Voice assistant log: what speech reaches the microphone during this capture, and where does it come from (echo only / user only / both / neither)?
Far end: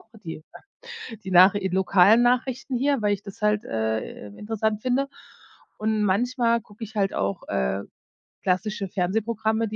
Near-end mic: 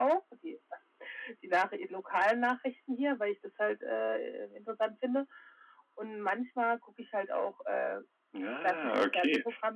both